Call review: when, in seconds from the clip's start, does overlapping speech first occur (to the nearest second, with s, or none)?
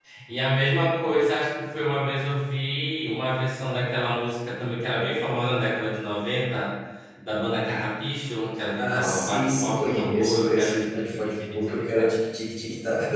9 s